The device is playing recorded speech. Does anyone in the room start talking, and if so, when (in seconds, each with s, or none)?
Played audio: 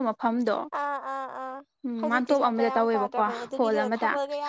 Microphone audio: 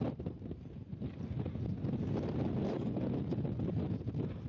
none